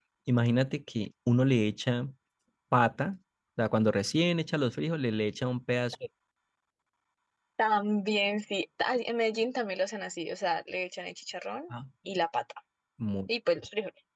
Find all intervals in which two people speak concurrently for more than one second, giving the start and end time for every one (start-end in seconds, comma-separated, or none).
none